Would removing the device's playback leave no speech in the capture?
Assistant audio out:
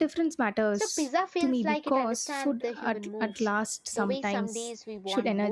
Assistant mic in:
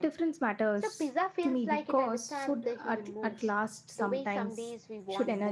Yes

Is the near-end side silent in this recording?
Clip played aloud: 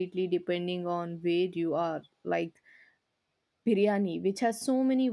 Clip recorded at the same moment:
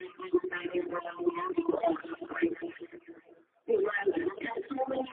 Yes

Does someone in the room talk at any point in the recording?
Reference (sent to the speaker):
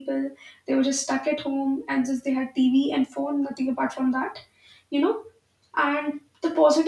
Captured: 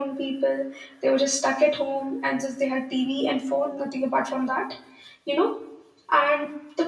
No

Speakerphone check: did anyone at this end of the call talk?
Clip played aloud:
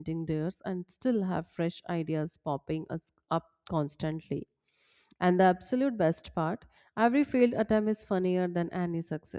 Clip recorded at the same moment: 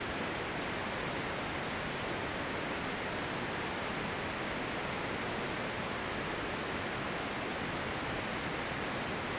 No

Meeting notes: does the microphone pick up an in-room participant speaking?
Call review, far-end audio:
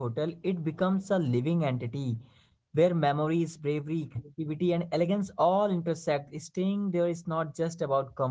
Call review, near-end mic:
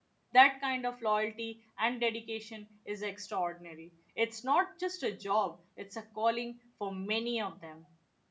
Yes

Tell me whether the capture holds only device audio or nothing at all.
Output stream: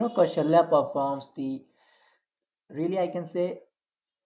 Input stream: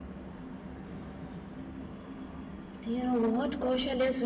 No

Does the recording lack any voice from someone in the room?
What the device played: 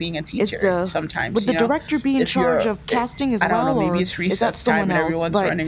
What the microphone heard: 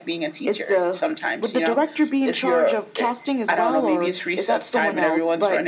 Yes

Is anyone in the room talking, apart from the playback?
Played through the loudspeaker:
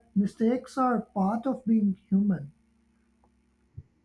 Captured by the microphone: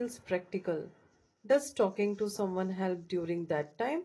Yes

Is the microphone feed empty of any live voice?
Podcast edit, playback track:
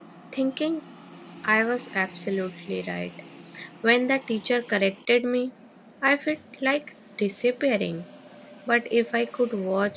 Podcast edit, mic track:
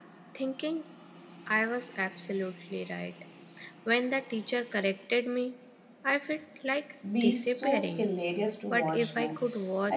No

